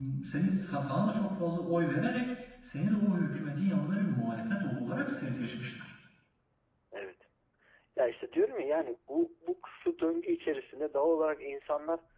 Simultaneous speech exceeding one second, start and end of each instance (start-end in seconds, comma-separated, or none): none